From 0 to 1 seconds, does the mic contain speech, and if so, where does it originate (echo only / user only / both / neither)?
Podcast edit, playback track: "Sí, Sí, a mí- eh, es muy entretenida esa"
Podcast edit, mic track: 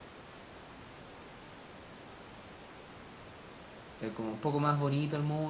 neither